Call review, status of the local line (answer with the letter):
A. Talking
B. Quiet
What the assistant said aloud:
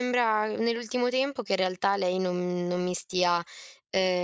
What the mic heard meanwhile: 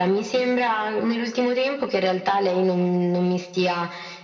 B